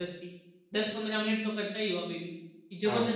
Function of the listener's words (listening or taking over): taking over